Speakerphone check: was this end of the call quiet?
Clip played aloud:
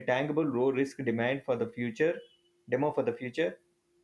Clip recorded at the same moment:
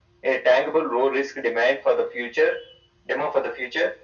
Yes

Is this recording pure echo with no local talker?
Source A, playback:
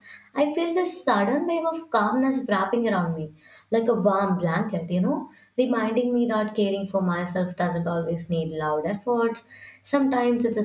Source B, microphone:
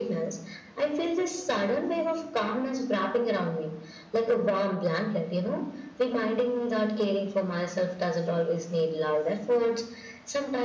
Yes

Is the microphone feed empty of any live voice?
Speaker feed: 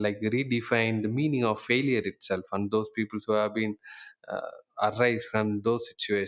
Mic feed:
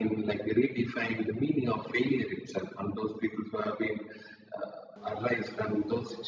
Yes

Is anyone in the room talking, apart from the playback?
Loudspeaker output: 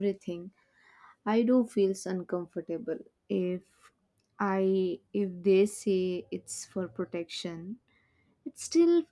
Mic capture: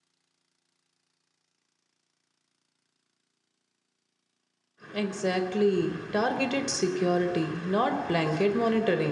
Yes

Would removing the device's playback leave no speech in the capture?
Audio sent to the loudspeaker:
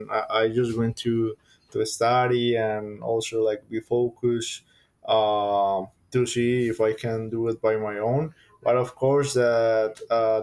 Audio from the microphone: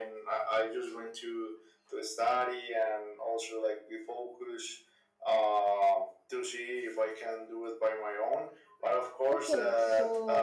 No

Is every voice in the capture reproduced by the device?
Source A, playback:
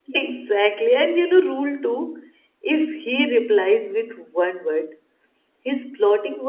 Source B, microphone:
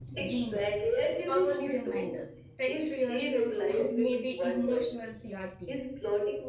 No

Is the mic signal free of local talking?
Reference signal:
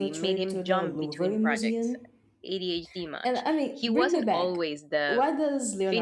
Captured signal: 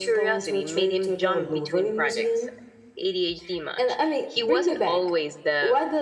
Yes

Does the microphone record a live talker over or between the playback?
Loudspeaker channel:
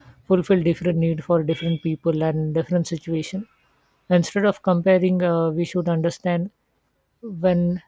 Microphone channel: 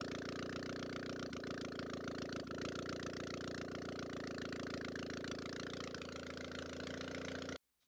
No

